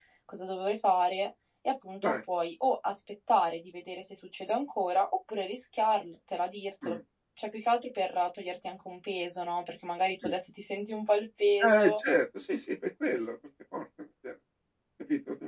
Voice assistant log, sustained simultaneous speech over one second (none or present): none